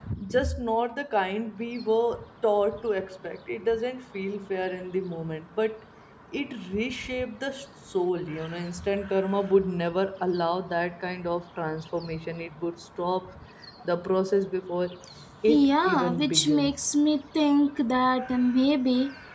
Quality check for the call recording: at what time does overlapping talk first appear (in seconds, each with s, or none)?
15.5 s